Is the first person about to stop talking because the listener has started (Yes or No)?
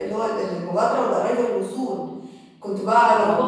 No